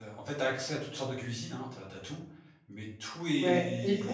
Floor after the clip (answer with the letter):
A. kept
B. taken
B